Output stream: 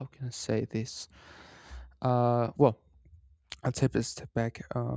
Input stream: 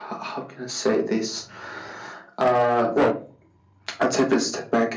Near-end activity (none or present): none